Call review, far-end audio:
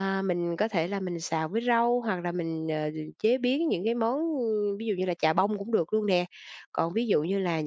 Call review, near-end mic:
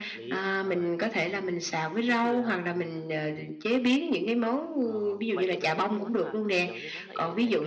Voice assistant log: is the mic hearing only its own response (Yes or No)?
No